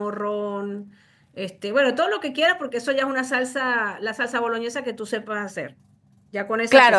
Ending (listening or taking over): taking over